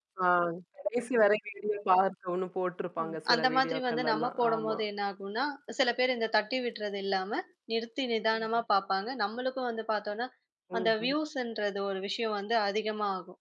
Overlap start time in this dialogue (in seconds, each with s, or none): 3.0 s